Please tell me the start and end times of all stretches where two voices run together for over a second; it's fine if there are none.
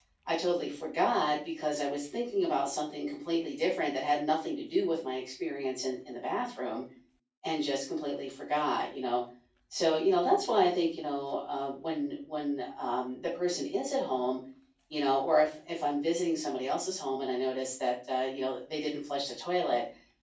none

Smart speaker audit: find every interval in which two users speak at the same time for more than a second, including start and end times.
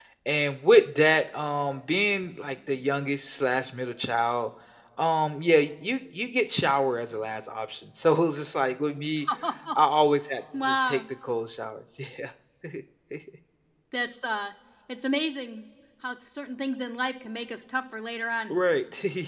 none

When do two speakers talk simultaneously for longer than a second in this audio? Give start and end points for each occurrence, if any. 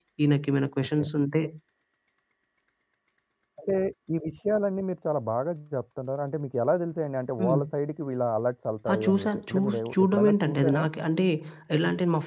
8.9-10.8

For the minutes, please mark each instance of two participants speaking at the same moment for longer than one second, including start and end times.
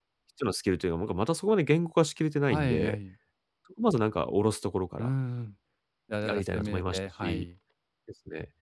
6.2-7.5

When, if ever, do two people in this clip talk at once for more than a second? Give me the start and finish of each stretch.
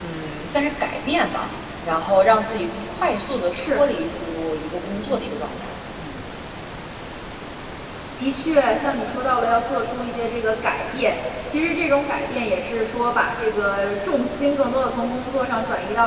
none

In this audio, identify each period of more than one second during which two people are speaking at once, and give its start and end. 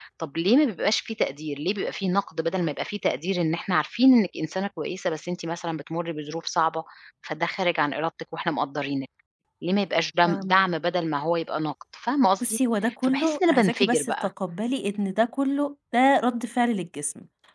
13.0-14.3

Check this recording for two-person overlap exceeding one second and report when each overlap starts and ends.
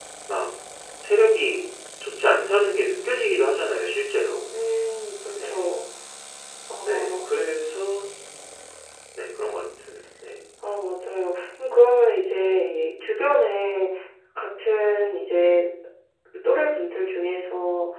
none

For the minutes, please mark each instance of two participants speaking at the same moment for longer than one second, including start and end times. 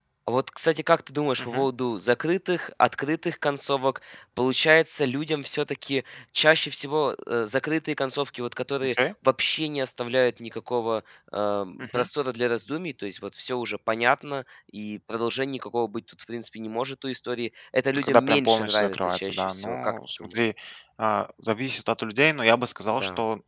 17.9-20.3

